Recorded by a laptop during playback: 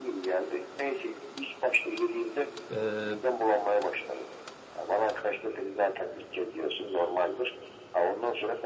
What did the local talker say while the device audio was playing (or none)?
Ee,